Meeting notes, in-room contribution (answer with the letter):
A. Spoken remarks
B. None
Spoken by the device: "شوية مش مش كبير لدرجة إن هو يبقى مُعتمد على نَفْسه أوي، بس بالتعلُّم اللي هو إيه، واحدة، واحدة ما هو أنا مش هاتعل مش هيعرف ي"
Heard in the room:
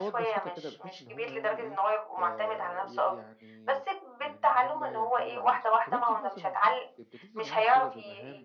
A